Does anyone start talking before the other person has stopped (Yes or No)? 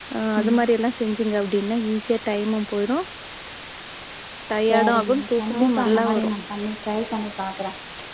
Yes